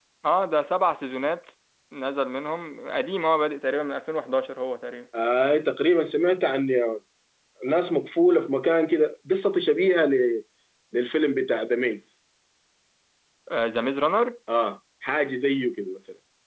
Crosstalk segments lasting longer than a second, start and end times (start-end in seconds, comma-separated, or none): none